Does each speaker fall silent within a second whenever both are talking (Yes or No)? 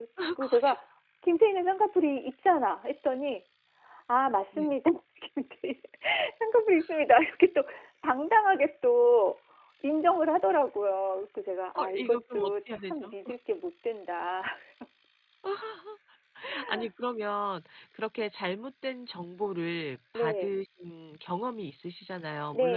No